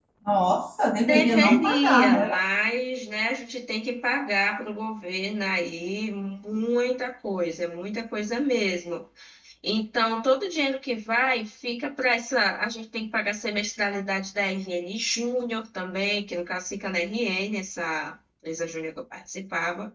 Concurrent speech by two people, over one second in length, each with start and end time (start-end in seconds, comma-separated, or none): 1.1-2.4